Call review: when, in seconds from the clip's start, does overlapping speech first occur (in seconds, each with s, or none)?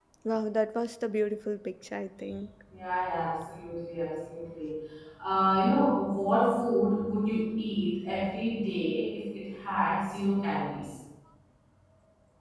none